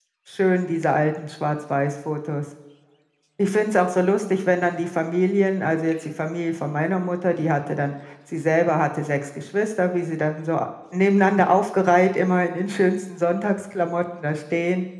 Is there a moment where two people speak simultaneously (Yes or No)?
No